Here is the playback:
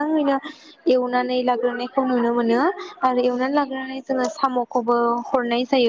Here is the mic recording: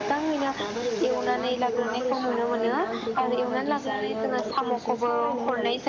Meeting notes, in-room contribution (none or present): present